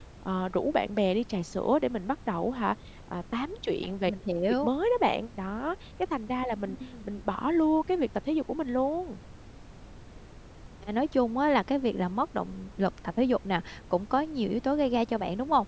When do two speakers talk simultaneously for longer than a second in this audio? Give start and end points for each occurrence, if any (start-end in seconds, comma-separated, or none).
none